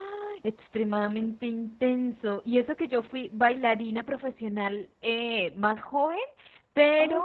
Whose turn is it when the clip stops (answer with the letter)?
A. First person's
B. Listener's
A